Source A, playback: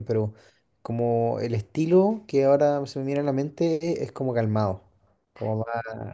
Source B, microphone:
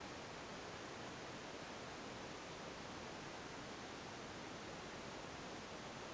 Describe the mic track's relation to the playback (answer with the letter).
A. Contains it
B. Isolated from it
B